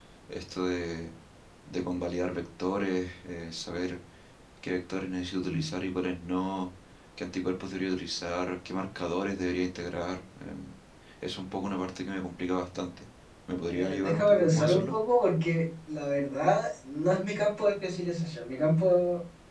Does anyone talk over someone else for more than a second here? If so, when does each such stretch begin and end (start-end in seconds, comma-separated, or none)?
13.7-14.9